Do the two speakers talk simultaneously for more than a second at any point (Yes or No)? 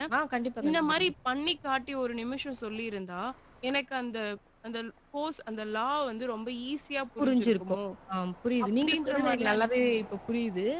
Yes